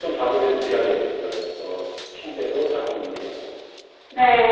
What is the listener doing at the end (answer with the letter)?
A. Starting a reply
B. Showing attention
A